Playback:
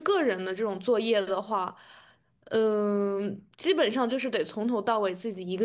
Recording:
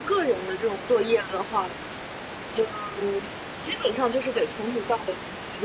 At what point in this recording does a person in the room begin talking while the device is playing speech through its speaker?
none

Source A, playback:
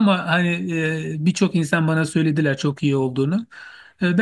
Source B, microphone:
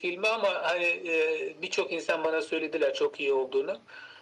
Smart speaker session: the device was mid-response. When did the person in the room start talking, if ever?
none

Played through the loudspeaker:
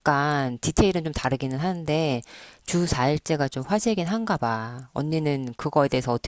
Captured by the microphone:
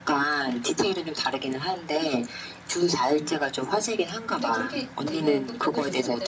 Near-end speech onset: 4 s

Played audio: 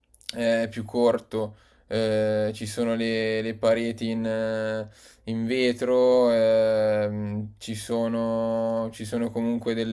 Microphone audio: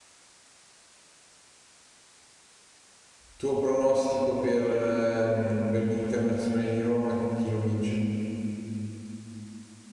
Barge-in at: 3 s

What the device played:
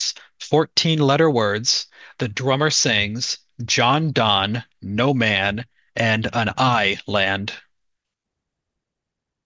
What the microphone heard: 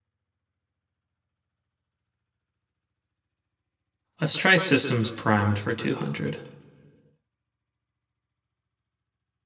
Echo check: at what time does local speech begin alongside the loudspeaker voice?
4 s

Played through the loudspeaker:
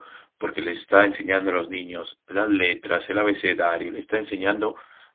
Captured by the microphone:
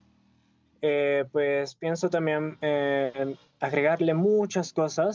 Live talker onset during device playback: 1 s

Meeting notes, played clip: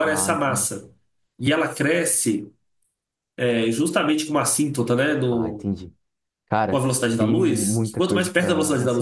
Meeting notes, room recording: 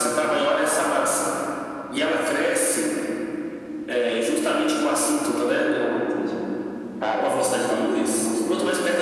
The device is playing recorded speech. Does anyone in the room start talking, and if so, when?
none

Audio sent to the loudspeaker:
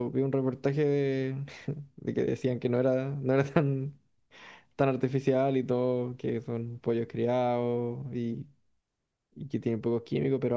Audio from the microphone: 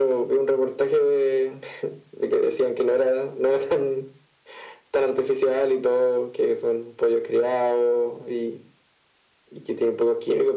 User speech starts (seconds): none

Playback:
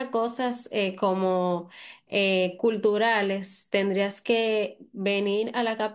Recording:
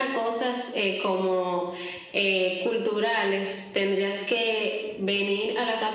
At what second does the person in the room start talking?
none

